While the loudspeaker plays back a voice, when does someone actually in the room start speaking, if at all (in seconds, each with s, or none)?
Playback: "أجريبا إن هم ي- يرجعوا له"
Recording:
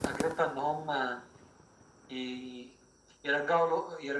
none